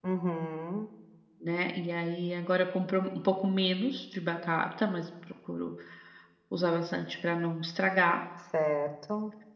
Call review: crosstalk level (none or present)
none